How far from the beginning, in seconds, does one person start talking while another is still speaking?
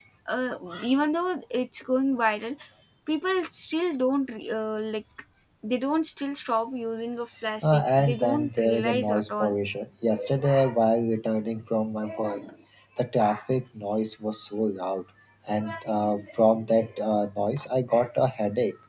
7.6 s

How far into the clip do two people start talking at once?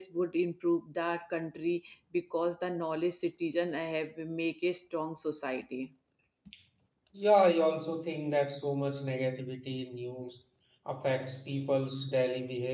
none

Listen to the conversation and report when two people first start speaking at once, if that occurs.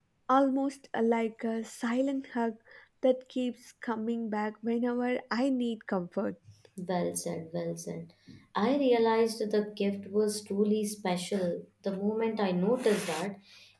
none

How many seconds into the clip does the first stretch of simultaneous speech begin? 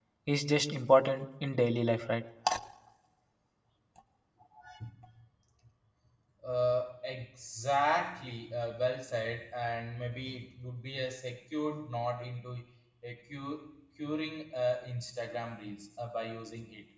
none

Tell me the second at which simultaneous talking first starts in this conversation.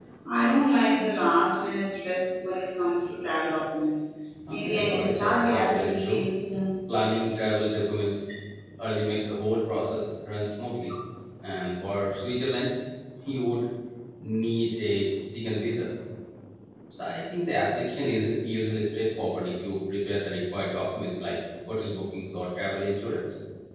4.5 s

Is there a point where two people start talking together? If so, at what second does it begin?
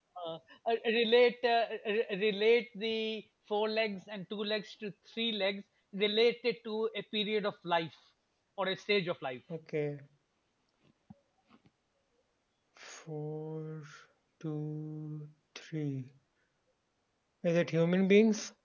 none

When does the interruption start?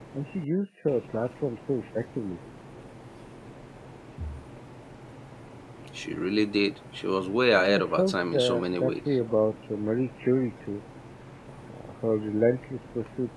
7.6 s

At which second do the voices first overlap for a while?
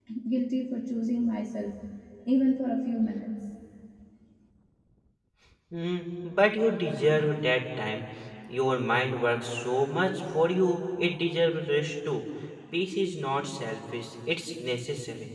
none

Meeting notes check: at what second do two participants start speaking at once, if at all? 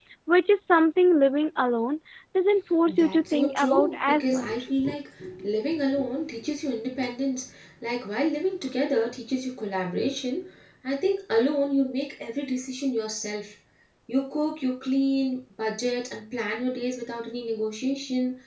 2.9 s

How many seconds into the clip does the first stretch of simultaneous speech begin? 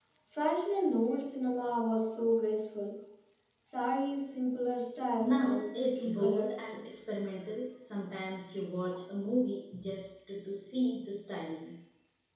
5.2 s

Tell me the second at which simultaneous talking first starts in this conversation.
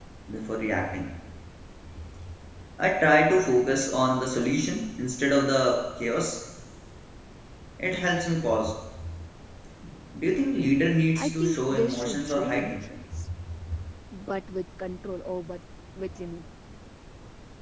11.2 s

